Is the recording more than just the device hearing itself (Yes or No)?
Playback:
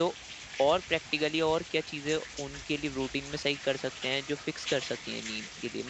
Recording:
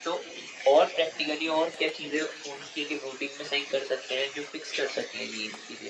No